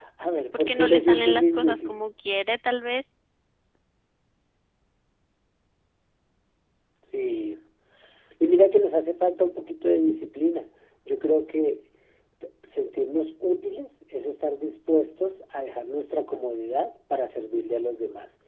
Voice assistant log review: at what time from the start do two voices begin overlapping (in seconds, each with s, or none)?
0.5 s